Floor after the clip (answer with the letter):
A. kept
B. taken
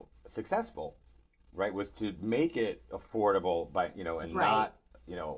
A